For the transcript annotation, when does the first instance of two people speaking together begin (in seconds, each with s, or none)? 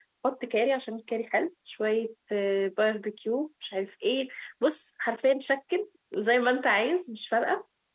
none